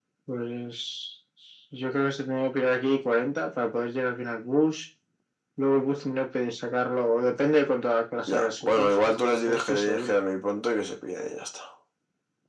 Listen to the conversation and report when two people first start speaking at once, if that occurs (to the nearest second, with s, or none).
8 s